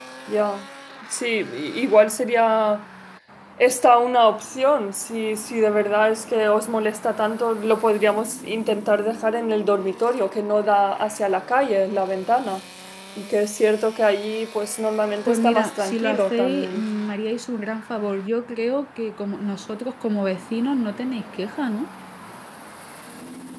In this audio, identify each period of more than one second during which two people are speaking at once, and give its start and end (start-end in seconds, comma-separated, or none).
15.3-16.8